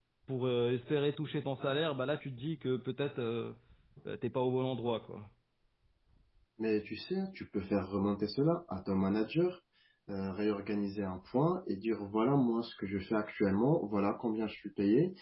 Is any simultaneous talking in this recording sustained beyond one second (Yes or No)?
No